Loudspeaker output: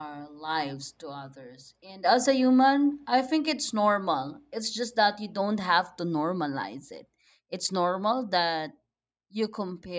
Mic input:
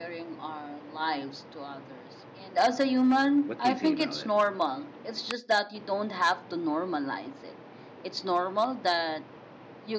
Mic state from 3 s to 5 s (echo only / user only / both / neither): both